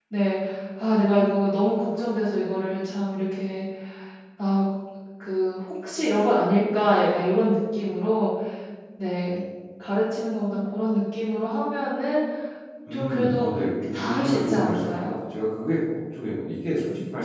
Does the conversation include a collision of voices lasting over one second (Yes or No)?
Yes